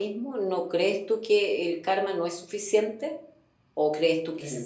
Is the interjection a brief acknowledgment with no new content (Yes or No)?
No